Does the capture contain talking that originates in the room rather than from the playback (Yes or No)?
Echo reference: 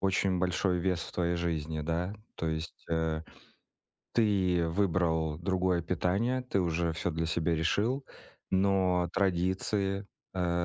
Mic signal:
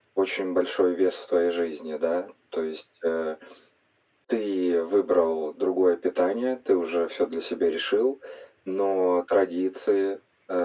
No